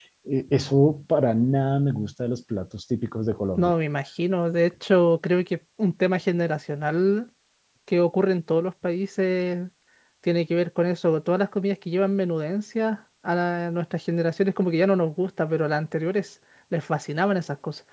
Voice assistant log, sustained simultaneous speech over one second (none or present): none